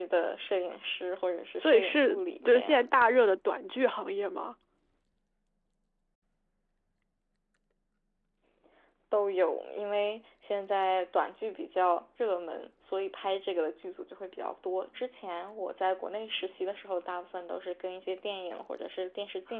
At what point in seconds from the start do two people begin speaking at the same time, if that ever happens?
1.6 s

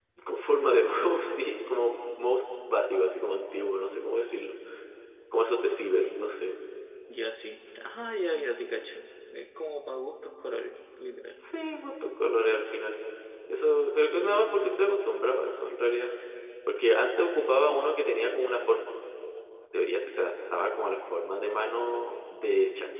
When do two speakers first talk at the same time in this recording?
none

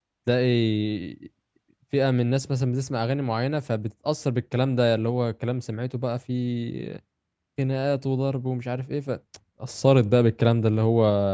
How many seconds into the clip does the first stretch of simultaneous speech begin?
none

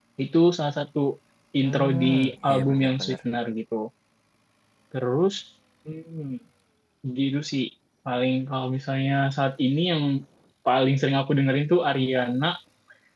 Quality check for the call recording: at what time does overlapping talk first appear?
1.6 s

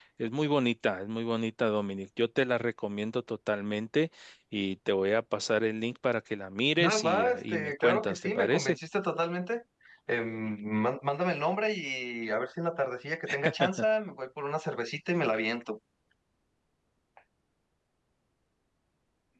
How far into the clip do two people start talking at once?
6.8 s

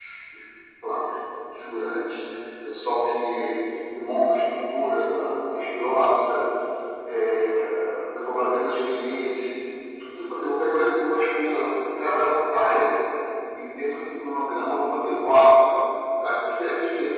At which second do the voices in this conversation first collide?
none

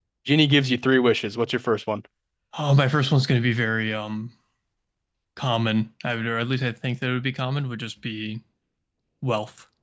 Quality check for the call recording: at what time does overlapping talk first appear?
none

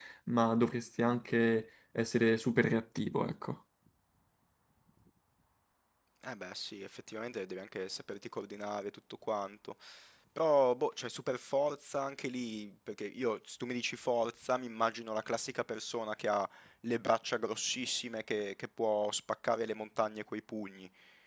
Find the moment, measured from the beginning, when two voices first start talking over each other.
none

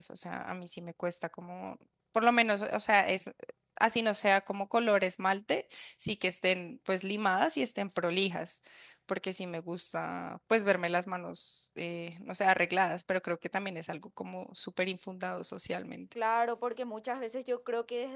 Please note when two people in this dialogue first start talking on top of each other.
none

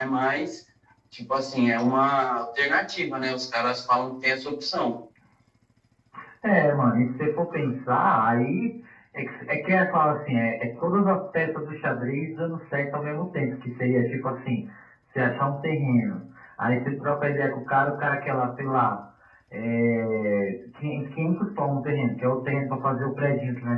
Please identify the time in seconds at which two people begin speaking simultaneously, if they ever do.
none

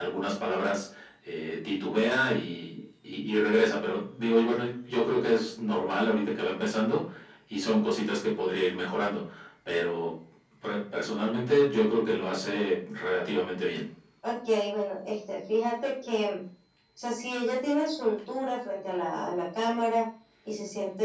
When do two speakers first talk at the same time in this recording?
none

